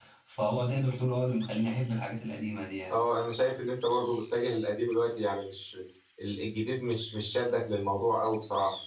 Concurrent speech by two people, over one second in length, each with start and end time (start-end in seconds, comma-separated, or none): none